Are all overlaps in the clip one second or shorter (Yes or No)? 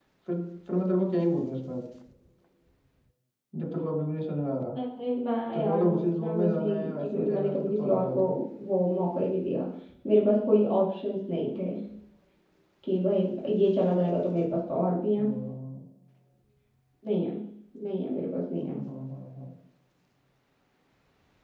No